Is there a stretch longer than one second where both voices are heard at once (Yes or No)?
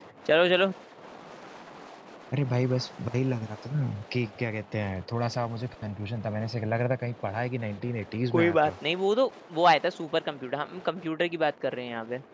No